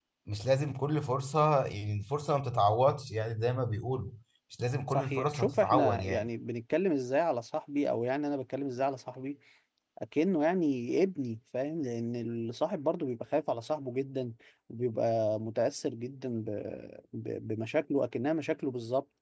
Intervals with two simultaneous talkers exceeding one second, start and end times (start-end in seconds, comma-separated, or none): 4.9-6.3